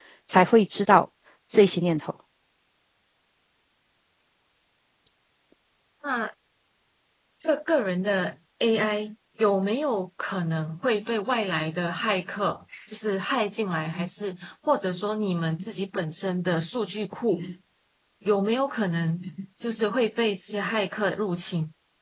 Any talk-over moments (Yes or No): No